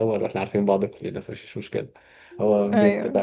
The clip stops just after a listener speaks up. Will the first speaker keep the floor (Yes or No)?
Yes